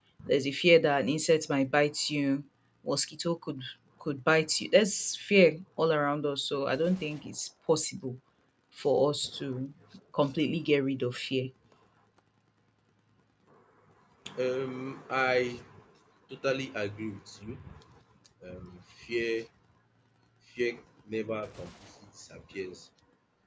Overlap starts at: none

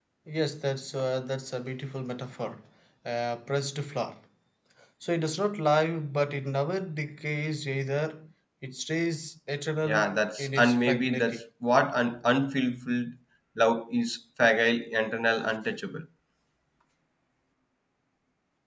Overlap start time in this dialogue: 9.8 s

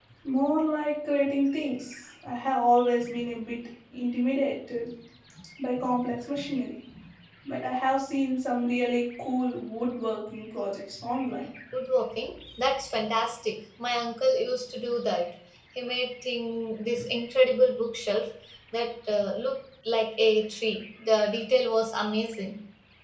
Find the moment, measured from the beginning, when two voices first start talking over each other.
none

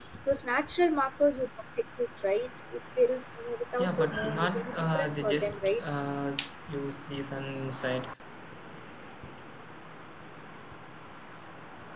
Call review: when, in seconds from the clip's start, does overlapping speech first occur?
3.8 s

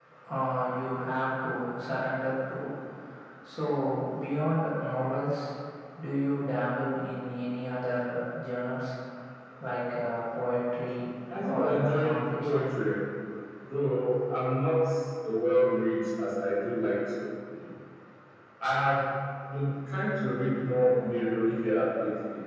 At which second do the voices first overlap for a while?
11.3 s

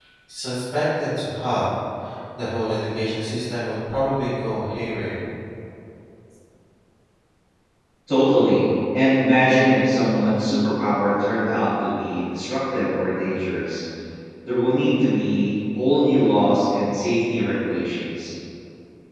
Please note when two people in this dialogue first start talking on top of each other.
none

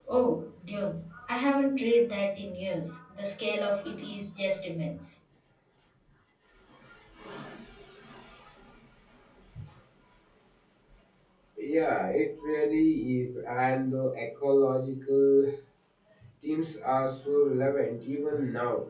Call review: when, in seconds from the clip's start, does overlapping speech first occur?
none

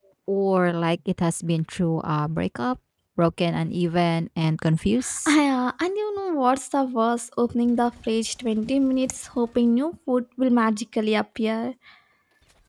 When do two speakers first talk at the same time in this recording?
none

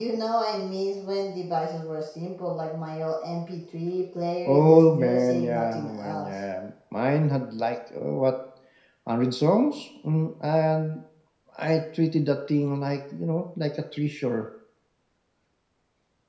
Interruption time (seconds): 4.4 s

